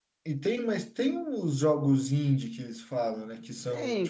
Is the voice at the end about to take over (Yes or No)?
Yes